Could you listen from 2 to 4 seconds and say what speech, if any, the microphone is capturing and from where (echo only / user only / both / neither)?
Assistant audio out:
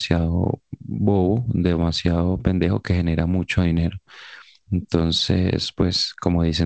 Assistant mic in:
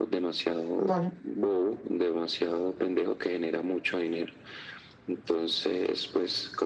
echo only